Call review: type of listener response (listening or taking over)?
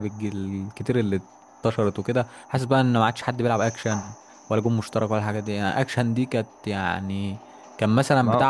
listening